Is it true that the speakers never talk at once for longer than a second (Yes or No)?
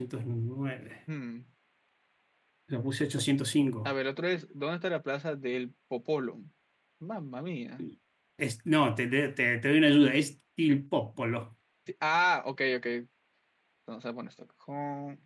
Yes